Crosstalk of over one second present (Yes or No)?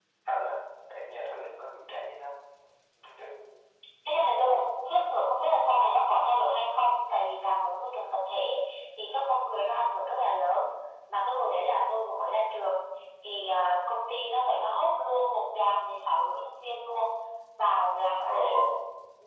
No